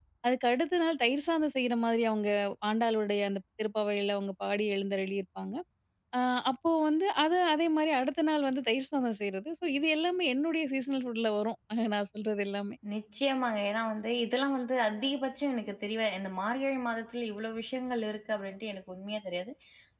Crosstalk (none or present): none